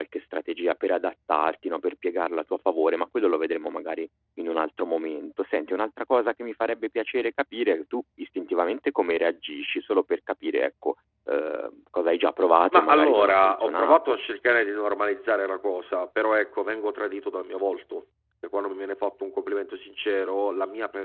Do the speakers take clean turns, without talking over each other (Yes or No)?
No